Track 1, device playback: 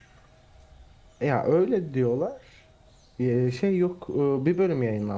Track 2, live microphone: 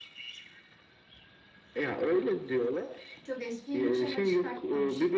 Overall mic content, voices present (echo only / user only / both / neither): both